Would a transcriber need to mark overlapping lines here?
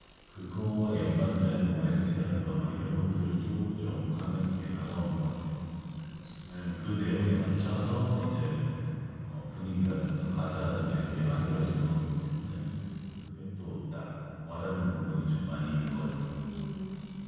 No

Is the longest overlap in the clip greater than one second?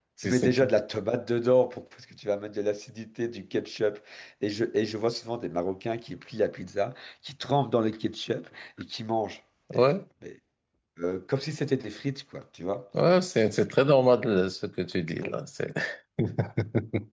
No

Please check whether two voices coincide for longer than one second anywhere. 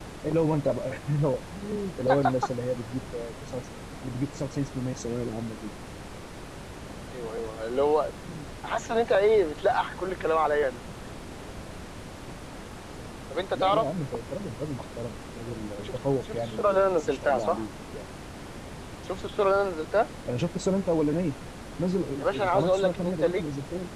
Yes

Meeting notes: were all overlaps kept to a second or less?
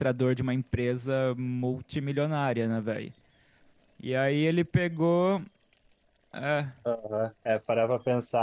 Yes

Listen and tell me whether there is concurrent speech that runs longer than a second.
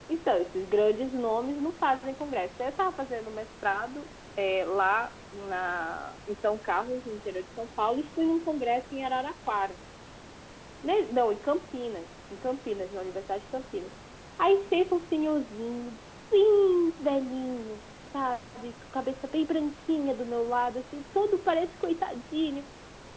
No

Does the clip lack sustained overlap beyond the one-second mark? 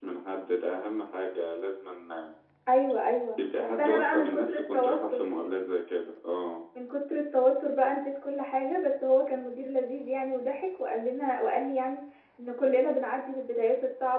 No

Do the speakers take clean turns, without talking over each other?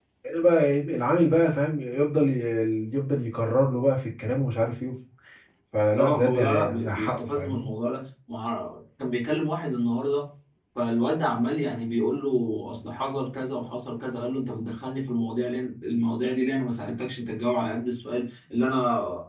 No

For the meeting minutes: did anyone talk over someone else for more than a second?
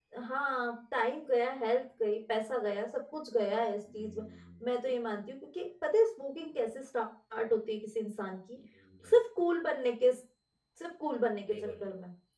No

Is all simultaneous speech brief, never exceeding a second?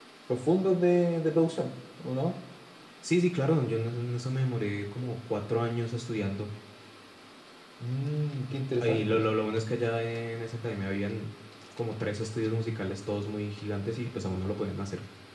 Yes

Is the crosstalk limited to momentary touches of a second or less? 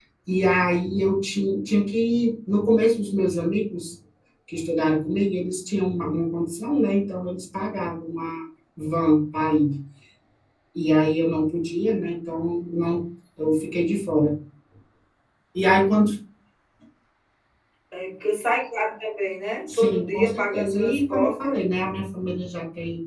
No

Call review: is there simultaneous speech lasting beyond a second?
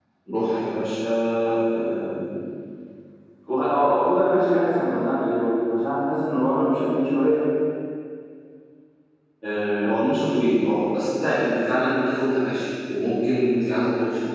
No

